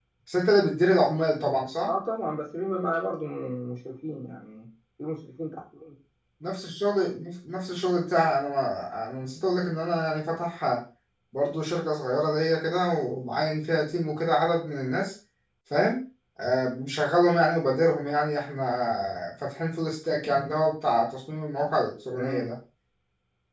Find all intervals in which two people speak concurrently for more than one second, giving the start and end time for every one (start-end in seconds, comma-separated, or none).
none